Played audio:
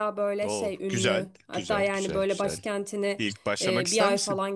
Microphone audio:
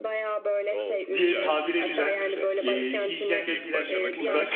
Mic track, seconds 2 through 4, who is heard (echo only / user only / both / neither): both